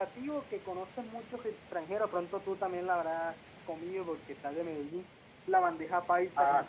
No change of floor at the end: No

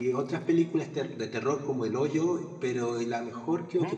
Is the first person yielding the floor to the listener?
No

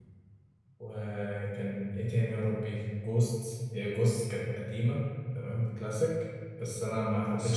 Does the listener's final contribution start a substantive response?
No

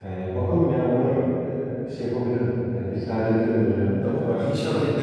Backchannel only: No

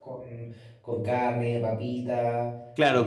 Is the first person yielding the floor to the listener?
Yes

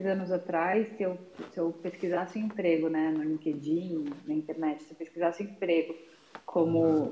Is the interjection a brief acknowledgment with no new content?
Yes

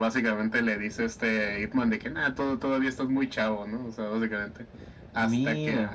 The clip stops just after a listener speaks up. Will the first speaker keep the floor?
Yes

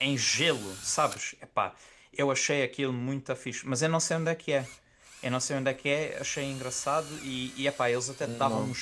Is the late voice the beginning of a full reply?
No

